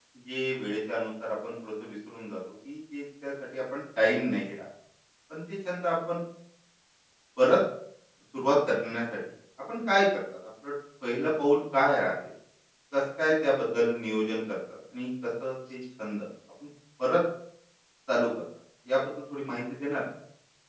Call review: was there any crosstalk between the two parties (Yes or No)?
No